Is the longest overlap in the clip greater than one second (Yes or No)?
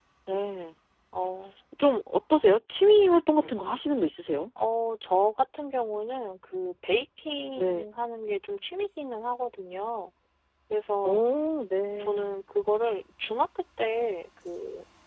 No